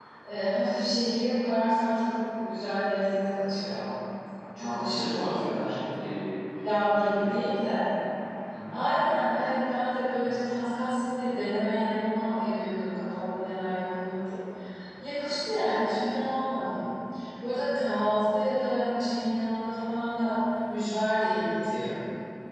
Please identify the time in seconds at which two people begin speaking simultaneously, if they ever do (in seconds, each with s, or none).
4.6 s